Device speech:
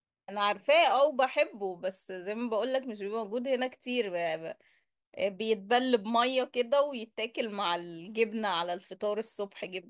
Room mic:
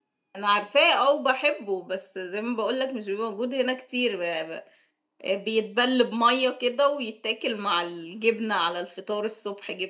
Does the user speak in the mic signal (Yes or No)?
No